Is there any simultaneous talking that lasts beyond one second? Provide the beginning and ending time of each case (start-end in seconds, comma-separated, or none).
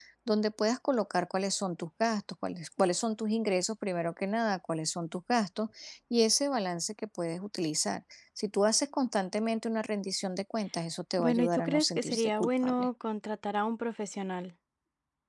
11.2-12.9